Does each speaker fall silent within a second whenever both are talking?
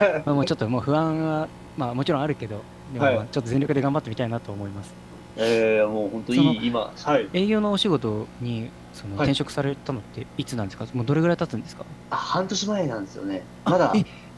Yes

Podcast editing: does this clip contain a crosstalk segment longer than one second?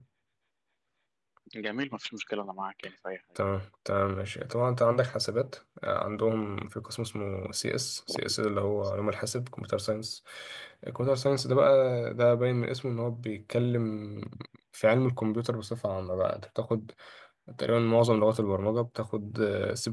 No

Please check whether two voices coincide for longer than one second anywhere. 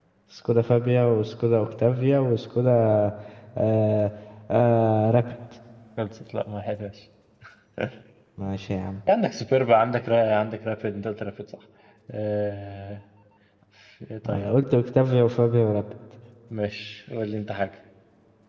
No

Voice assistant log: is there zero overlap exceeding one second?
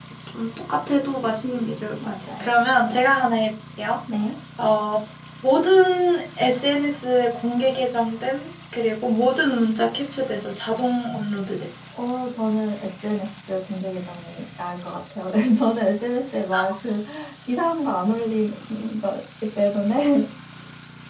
Yes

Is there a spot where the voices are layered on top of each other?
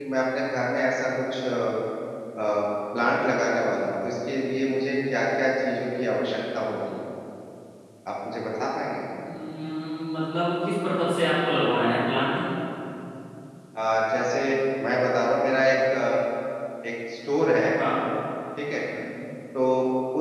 No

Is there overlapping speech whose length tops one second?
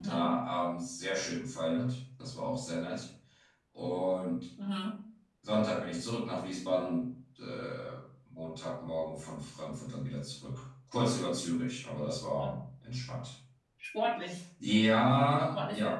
No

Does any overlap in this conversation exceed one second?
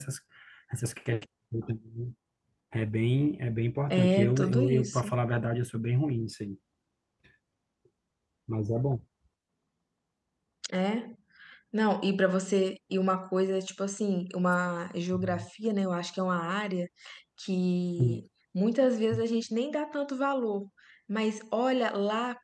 Yes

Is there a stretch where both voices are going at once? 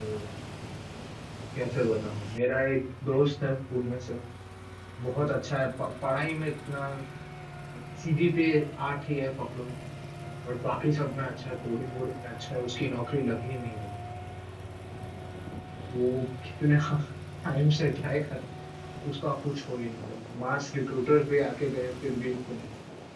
No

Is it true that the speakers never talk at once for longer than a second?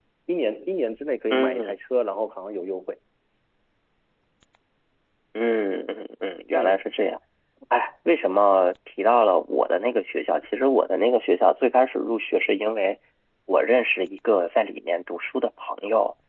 Yes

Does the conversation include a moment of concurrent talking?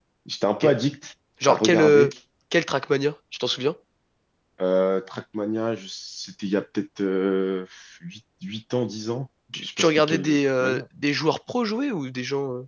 Yes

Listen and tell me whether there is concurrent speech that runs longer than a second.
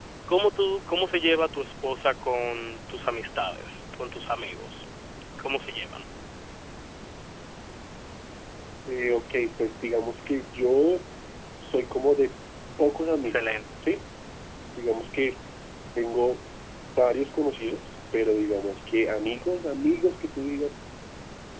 No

